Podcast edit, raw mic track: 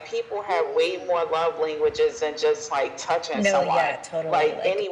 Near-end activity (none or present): present